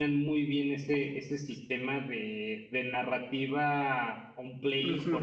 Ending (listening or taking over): taking over